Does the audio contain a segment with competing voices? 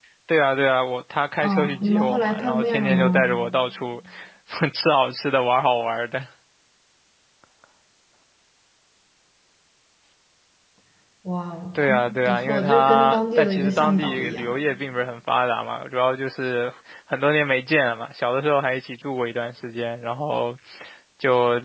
Yes, from 1.4 s

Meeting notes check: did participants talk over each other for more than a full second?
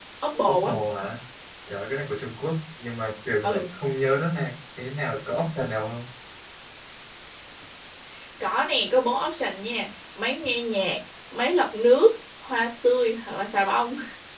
No

